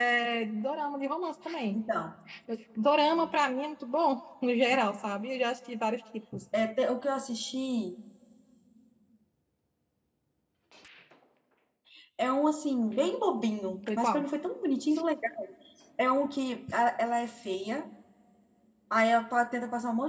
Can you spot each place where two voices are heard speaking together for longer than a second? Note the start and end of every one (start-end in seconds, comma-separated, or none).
none